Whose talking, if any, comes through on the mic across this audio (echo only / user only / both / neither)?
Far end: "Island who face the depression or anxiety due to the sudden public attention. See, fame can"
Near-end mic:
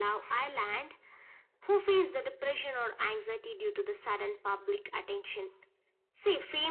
echo only